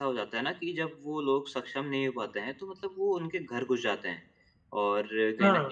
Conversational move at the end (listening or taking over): listening